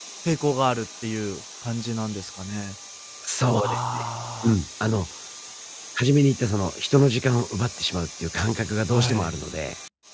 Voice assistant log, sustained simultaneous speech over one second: none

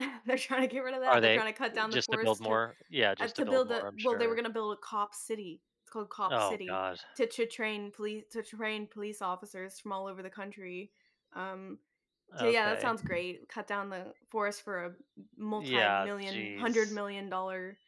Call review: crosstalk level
present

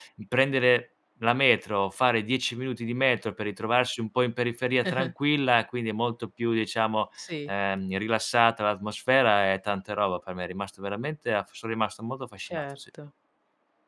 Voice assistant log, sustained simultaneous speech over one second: none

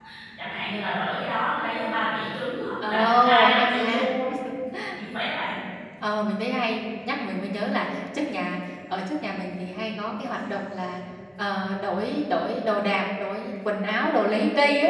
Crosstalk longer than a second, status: present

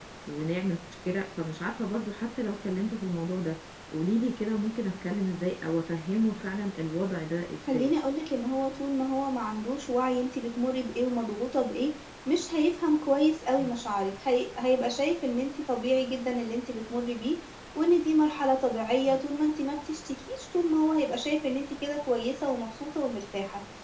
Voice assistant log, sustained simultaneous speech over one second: none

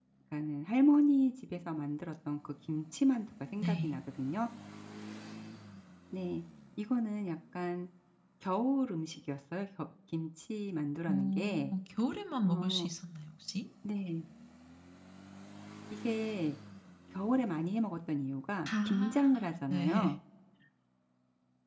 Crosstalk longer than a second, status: present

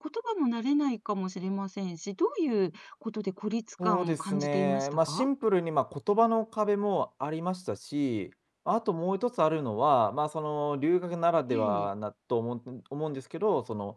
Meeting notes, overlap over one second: present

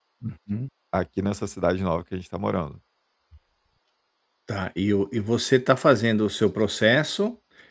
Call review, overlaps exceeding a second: none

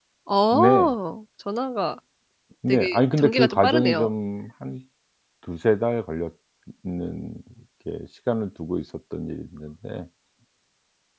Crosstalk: present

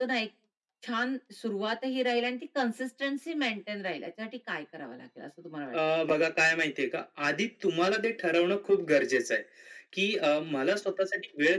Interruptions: none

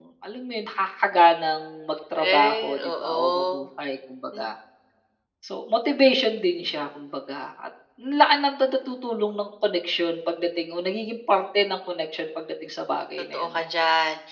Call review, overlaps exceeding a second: present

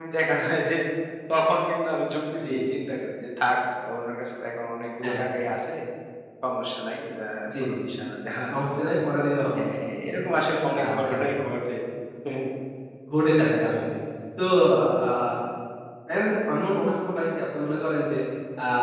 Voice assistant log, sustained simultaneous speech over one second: none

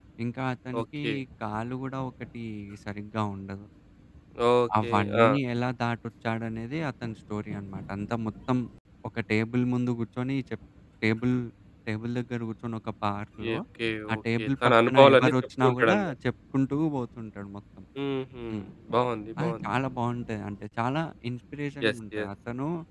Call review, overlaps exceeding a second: present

